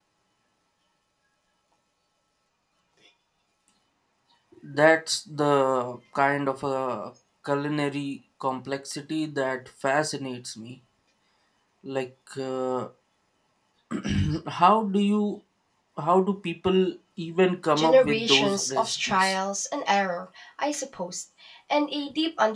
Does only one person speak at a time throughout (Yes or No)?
No